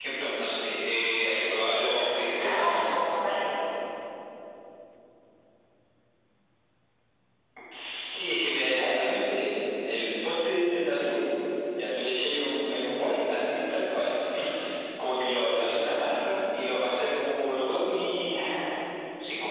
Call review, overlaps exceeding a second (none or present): present